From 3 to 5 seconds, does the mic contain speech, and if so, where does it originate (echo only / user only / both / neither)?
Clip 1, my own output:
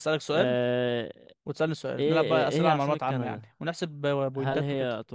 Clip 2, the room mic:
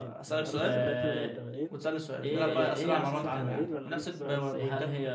both